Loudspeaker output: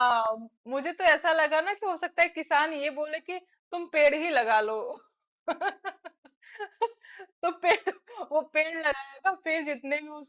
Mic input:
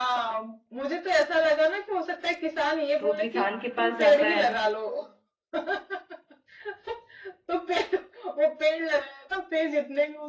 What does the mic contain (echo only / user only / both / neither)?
both